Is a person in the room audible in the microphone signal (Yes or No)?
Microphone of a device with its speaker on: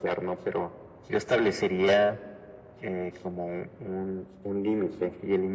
No